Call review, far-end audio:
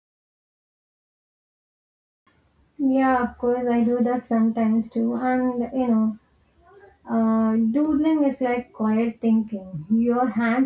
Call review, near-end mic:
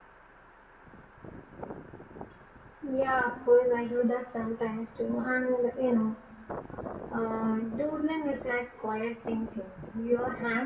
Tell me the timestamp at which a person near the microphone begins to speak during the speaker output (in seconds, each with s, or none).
none